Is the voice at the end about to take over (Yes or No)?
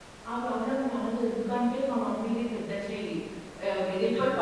No